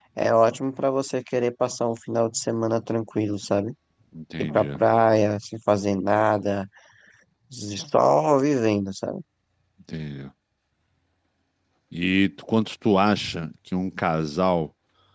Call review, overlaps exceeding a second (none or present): none